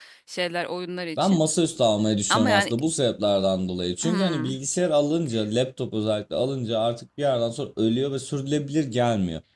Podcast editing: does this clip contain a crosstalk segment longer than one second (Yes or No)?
No